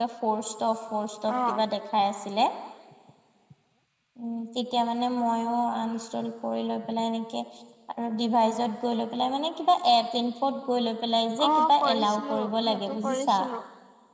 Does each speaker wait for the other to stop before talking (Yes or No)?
No